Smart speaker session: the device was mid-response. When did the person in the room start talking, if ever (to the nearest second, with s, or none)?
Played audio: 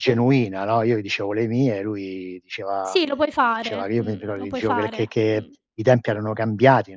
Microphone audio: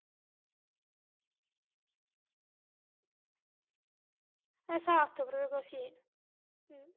5 s